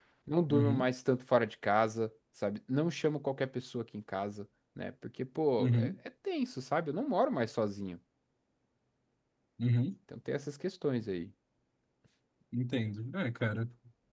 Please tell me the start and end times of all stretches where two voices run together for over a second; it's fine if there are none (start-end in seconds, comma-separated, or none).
none